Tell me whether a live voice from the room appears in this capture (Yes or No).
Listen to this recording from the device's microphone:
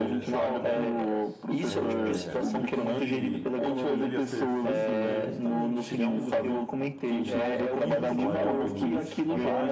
Yes